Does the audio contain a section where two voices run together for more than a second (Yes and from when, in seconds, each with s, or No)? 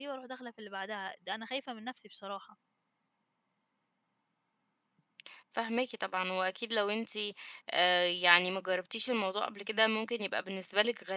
No